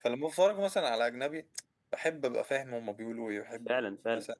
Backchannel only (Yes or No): No